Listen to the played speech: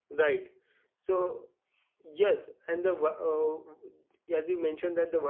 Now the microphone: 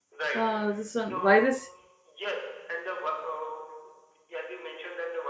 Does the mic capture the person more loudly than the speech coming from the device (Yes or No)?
Yes